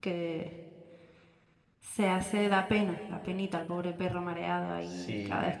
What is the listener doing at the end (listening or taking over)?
taking over